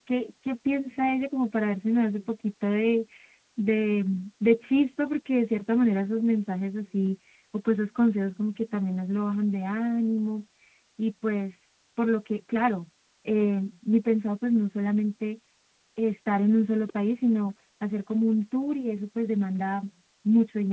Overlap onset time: none

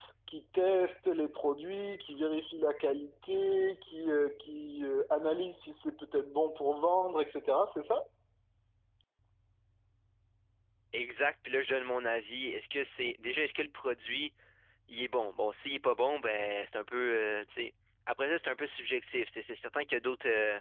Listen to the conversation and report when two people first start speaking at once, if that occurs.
none

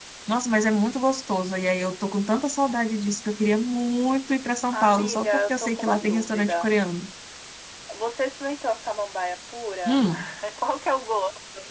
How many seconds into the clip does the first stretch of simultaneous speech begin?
5 s

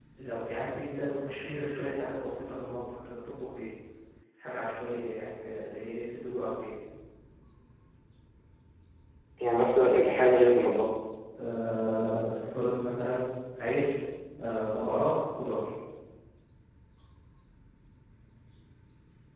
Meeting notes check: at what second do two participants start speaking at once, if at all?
none

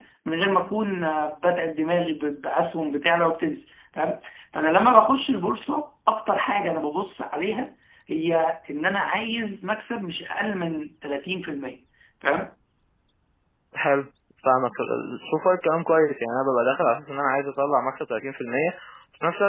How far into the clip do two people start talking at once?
none

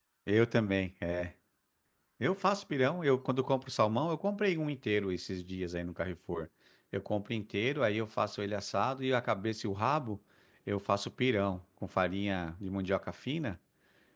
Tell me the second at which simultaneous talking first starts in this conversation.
none

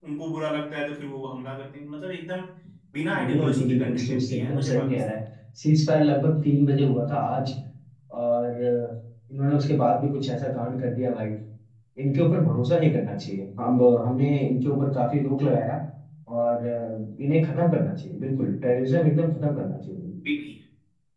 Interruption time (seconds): 3 s

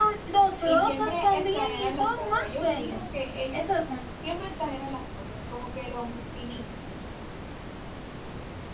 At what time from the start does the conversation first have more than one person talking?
1 s

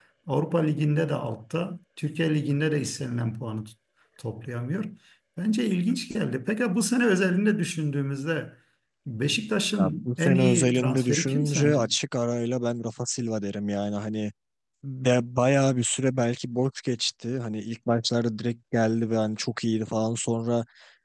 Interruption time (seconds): 10 s

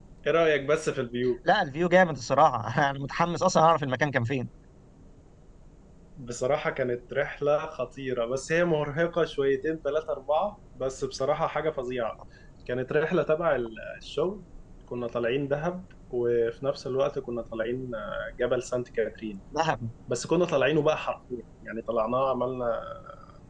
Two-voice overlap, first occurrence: none

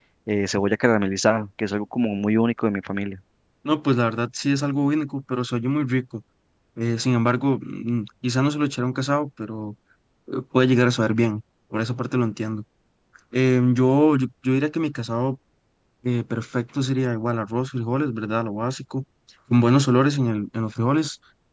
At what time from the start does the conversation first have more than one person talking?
none

